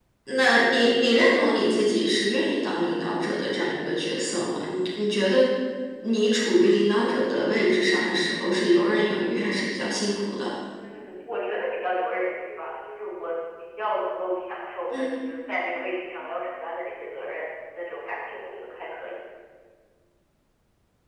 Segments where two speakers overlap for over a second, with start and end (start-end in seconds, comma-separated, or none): none